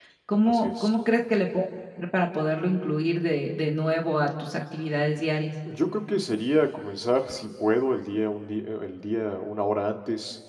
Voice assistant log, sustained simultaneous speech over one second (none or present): none